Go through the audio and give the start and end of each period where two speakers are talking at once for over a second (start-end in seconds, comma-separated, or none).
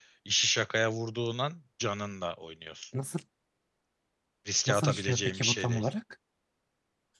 4.7-5.9